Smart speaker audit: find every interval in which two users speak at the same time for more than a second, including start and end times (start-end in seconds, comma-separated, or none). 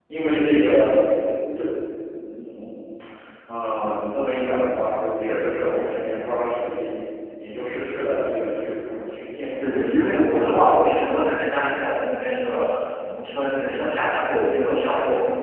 9.6-10.9